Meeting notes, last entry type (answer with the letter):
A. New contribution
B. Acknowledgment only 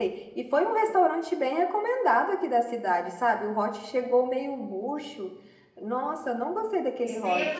A